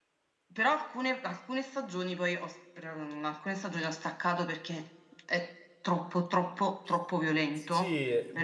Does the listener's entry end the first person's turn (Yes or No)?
Yes